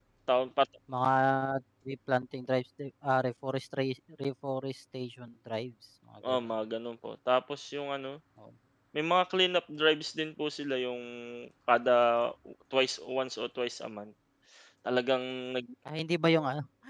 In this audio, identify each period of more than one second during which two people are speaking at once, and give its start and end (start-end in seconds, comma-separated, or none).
none